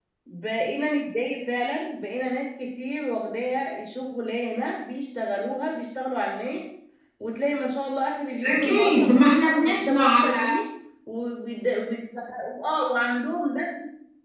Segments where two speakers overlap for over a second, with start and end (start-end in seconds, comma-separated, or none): 8.5-10.5